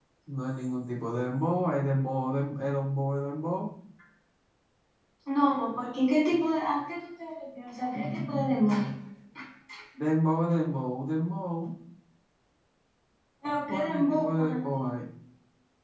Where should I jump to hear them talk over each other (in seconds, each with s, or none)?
13.7 s